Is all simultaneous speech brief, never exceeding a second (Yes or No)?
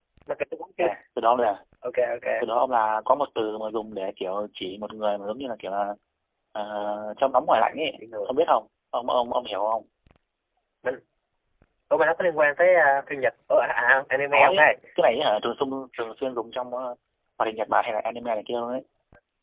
Yes